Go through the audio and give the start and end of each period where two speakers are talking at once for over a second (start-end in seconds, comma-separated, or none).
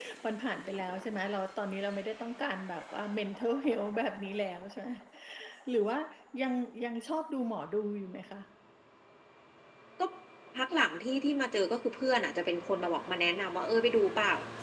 none